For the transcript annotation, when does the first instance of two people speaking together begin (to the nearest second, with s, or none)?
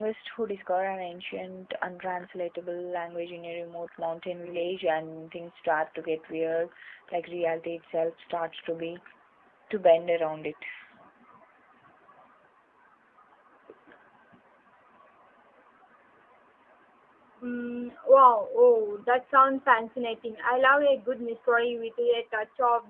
none